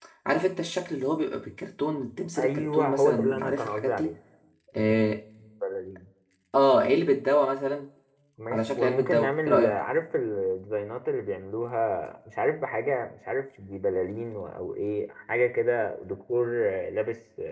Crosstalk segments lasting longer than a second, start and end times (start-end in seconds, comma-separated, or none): 2.4-4.1, 8.5-9.8